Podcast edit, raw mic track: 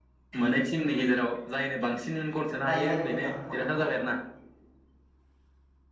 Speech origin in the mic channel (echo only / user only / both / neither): both